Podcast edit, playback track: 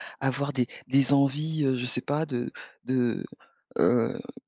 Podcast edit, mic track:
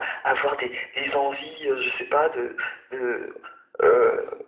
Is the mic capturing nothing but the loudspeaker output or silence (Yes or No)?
Yes